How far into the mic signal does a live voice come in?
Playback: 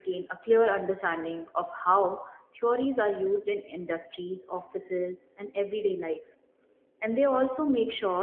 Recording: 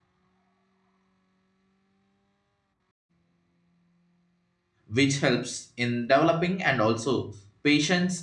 4.9 s

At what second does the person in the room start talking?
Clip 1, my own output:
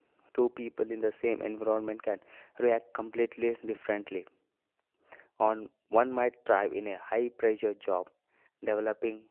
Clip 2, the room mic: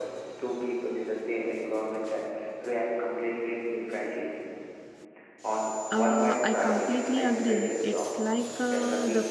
5.9 s

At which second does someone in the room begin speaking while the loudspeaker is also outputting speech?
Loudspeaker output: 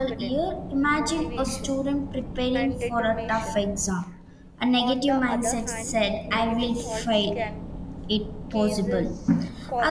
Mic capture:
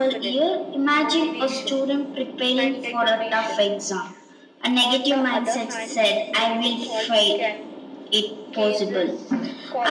none

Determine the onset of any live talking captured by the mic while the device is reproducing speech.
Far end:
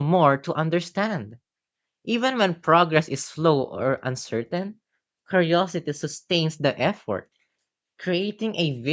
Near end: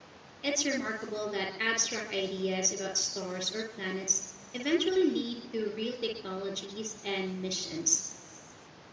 0.4 s

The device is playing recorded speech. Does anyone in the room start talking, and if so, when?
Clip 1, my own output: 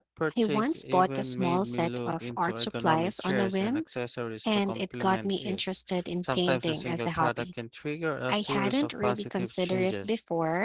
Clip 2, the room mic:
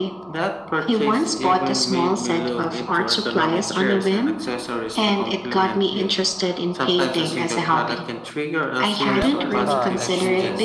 9.0 s

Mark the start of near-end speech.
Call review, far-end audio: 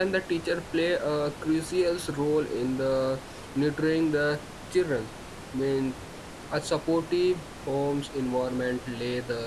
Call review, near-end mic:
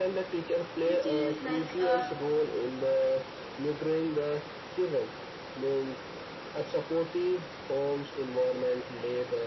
0.8 s

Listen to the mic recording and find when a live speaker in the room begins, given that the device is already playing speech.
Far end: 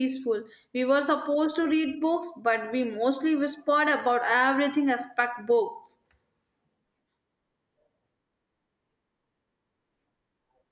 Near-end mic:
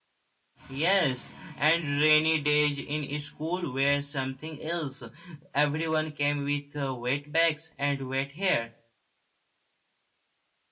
0.7 s

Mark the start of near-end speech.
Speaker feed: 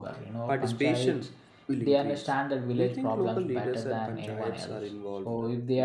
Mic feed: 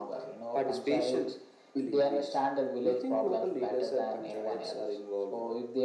none

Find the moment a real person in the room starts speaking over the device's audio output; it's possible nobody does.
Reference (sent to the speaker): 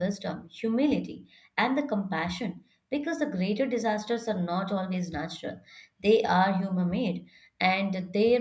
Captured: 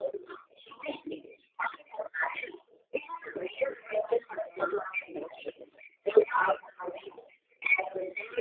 none

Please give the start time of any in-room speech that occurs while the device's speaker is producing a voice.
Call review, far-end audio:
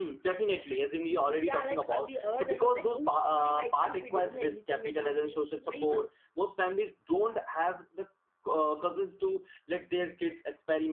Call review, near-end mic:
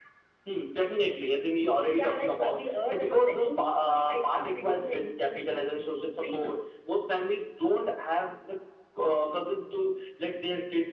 none

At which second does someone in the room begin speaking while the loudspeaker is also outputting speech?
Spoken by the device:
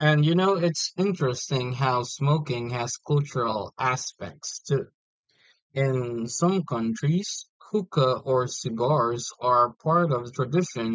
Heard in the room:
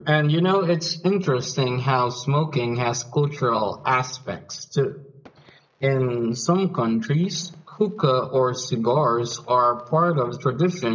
none

